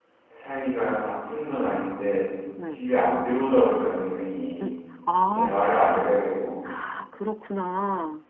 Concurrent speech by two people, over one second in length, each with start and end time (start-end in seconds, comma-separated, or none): none